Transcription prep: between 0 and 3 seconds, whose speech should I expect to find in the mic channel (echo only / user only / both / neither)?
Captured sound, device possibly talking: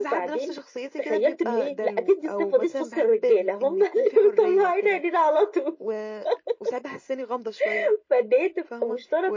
echo only